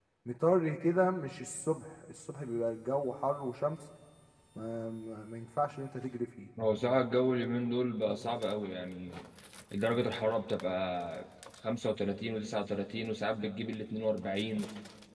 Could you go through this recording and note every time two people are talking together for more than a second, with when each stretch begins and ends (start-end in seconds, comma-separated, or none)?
none